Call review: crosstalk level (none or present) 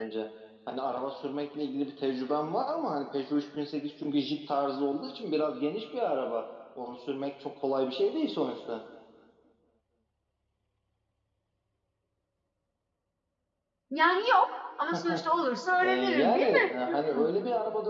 present